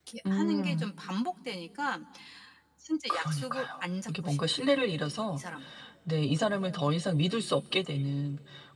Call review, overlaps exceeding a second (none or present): present